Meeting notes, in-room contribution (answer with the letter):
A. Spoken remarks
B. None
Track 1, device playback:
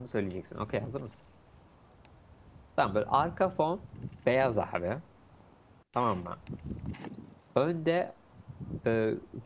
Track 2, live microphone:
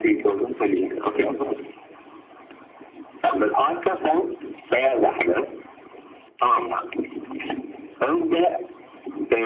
B